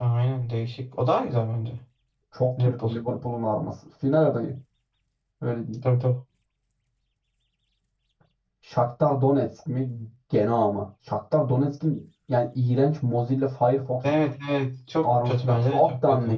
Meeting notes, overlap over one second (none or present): present